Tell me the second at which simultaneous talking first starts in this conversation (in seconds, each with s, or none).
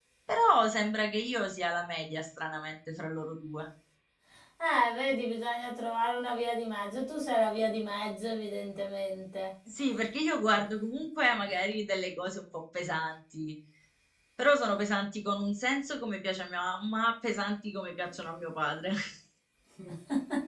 none